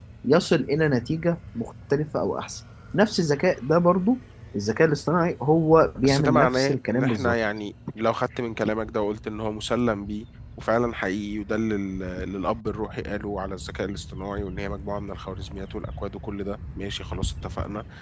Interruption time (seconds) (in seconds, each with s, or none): 6.0 s